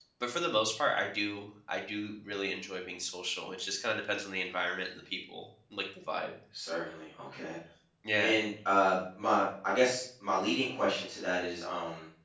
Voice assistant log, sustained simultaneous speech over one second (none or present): none